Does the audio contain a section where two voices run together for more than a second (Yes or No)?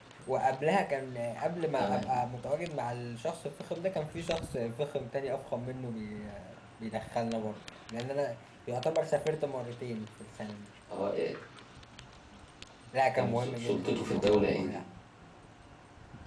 Yes